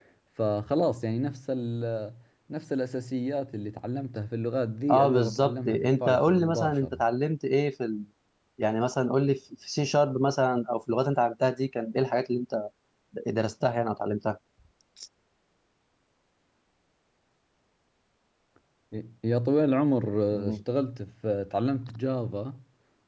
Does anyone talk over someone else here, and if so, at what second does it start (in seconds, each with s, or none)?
4.9 s